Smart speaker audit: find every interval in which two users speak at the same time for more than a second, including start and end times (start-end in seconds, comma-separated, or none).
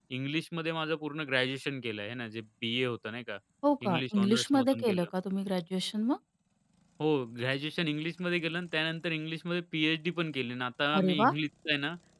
3.9-5.1